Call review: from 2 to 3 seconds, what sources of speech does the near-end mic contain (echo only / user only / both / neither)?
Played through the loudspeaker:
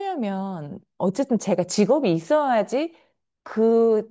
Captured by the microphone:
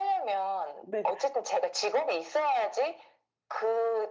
echo only